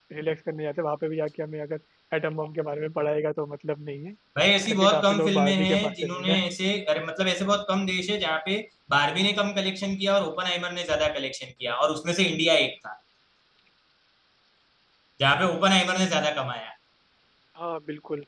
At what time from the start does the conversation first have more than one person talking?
4.7 s

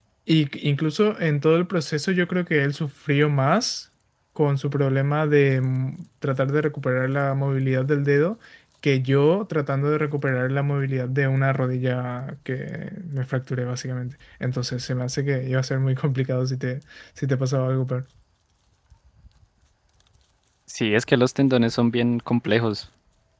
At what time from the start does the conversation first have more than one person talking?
none

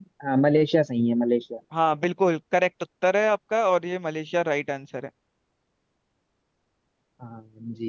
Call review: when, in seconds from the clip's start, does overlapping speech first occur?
none

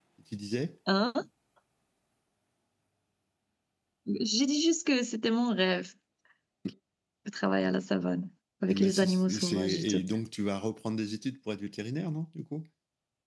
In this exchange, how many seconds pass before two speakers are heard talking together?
8.7 s

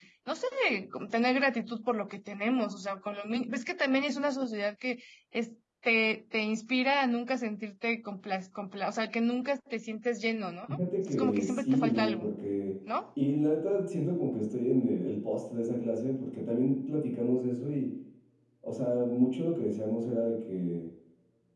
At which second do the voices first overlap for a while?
11.0 s

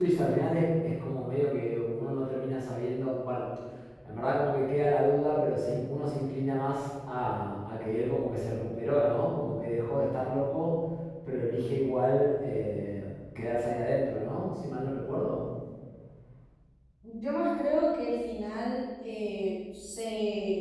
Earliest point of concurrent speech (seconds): none

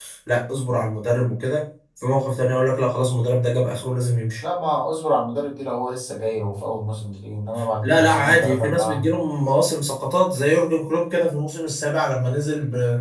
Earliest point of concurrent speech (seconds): 7.8 s

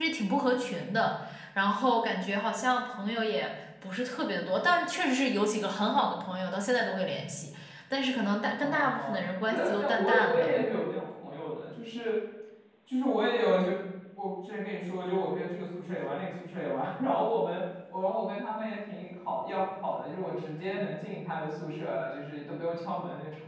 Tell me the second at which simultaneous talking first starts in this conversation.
8.5 s

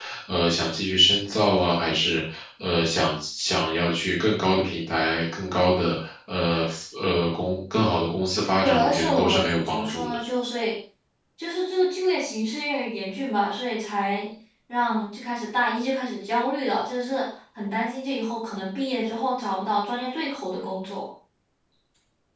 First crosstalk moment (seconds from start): 8.6 s

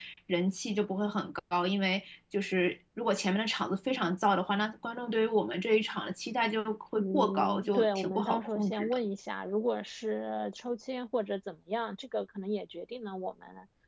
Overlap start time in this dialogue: 7.0 s

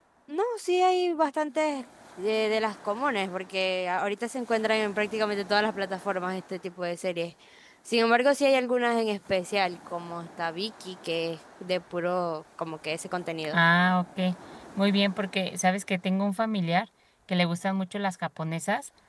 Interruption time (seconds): none

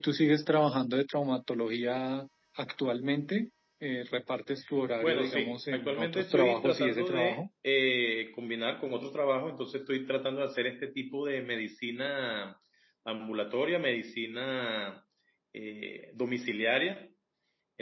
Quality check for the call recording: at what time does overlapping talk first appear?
5.0 s

